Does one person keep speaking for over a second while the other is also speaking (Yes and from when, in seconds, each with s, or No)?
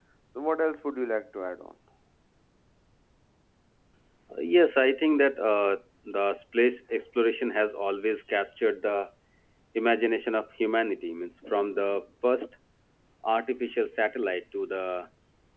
No